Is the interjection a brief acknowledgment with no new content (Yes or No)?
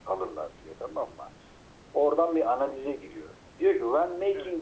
Yes